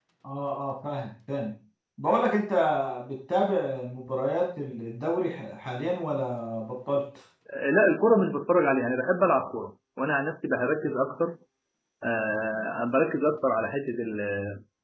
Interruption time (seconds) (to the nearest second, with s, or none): none